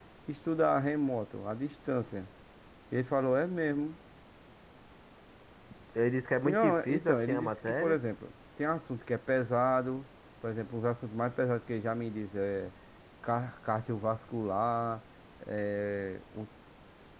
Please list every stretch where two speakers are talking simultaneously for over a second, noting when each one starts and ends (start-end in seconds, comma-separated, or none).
6.4-8.0